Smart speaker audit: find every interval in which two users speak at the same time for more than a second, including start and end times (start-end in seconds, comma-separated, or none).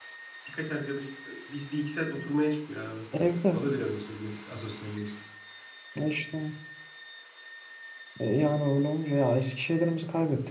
none